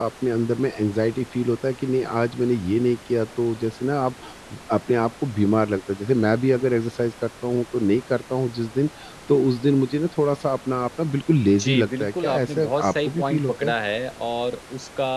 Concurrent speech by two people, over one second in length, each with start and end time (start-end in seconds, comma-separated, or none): 11.5-13.7